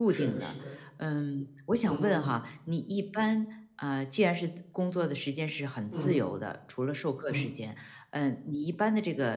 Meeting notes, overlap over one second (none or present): none